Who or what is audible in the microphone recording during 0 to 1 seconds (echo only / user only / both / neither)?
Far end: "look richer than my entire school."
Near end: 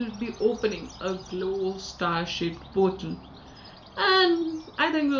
user only